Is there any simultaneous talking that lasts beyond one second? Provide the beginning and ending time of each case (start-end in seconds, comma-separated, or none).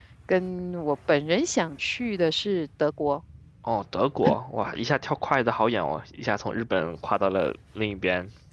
none